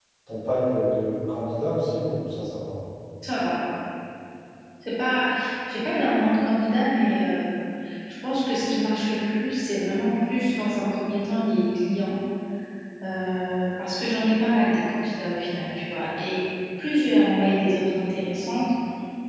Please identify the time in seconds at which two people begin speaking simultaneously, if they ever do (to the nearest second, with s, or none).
none